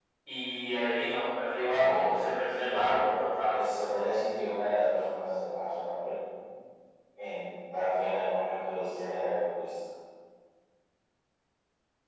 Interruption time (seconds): 1.7 s

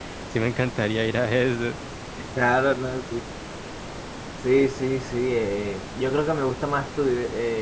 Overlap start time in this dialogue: none

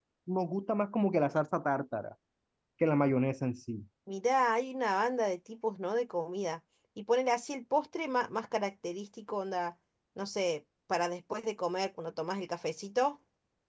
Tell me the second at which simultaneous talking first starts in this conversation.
none

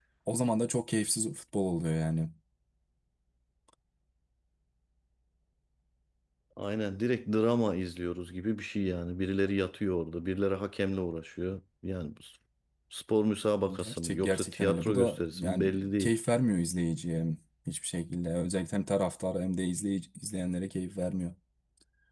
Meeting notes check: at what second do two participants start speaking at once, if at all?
13.7 s

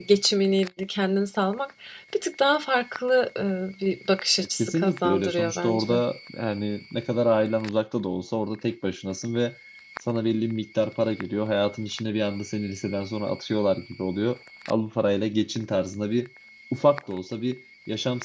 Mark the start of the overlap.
4.4 s

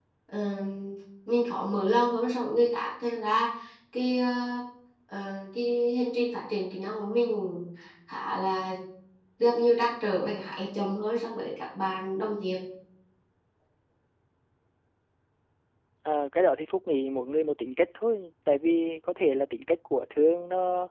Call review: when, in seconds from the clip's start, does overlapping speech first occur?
none

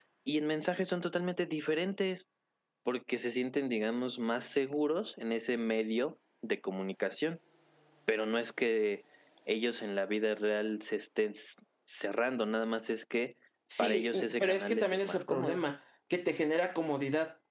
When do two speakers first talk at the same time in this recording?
13.8 s

